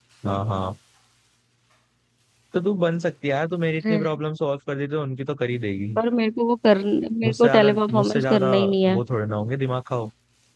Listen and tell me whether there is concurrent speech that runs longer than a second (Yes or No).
Yes